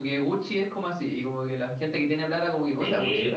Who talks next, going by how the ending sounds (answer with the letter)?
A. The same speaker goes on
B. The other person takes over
B